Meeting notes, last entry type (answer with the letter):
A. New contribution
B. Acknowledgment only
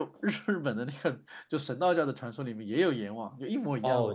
A